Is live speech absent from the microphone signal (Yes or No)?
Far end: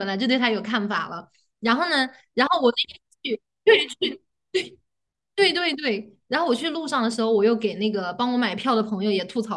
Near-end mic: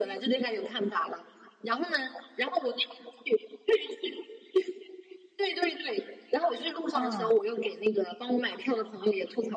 No